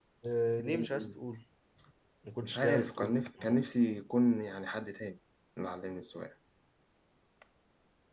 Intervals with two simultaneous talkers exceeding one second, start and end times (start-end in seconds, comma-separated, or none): 2.4-3.7